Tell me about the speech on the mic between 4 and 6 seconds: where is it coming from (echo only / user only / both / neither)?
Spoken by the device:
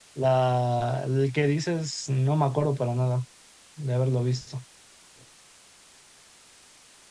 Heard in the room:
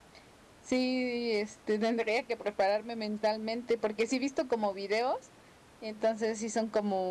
user only